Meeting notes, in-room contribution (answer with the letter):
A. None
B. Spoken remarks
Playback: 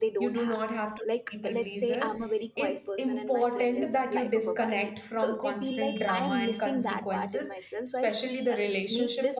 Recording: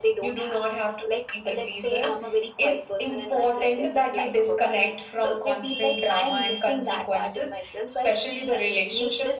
A